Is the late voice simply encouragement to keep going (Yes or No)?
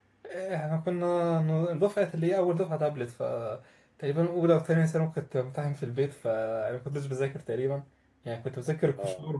Yes